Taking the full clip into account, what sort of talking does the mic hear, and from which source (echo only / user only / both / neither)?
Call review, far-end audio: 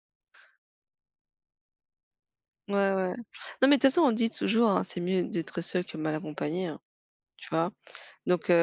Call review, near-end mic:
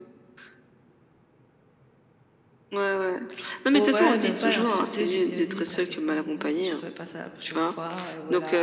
both